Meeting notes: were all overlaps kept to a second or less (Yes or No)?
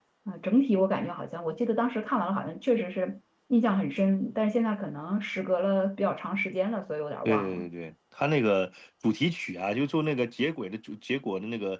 Yes